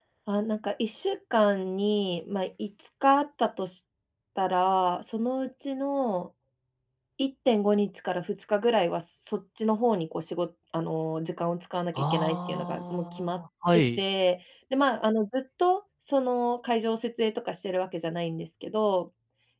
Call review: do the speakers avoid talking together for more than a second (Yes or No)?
No